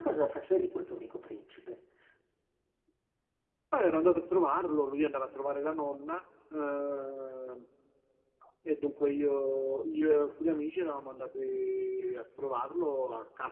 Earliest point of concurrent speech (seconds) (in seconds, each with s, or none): none